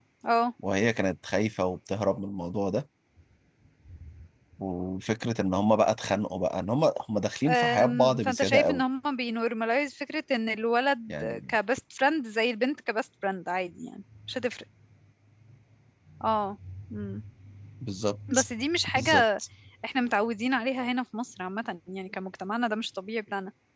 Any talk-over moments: Yes, from 7.5 s

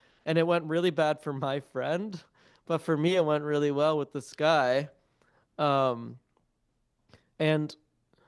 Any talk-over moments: No

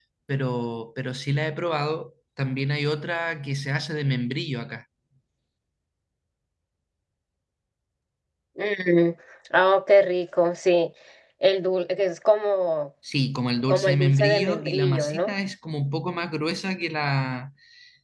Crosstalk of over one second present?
Yes, from 13.7 s

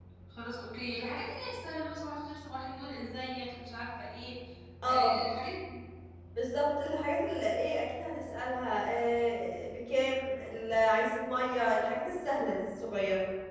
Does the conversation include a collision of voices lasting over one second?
No

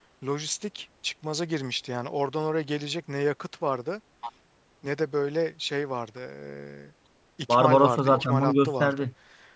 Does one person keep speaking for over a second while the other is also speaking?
Yes, from 7.5 s

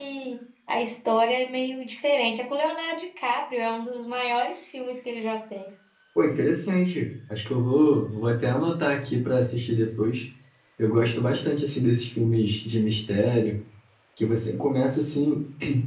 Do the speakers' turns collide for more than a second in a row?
No

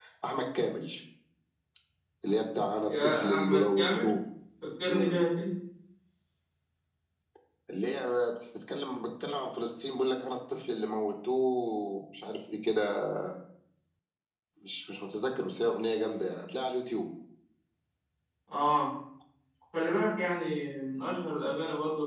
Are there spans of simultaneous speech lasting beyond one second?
Yes, from 2.9 s

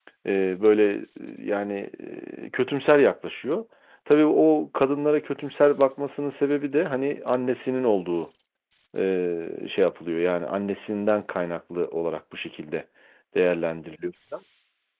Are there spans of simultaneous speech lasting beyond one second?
No

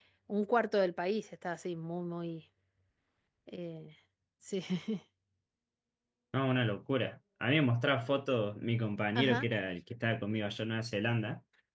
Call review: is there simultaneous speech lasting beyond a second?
No

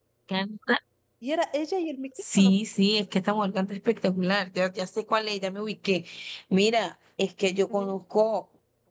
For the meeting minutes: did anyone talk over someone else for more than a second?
No

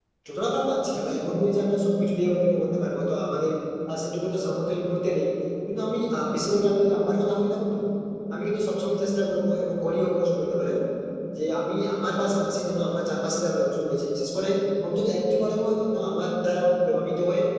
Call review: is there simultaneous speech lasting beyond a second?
No

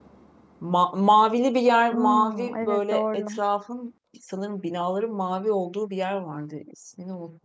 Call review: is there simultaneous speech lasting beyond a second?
Yes, from 1.9 s

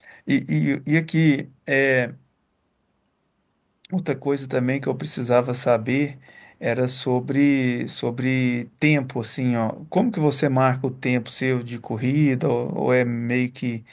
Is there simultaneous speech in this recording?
No

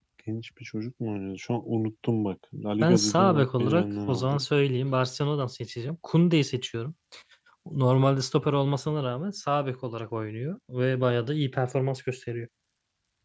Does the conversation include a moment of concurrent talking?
Yes, from 2.8 s

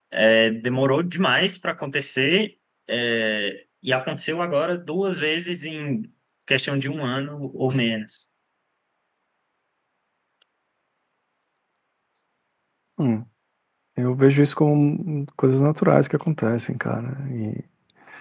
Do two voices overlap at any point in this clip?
No

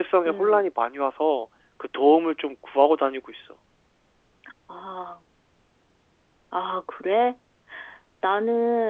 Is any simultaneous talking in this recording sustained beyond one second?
No

